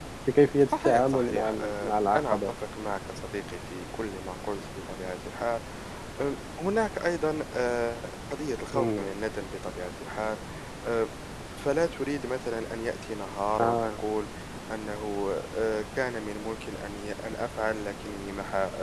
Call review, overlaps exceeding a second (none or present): present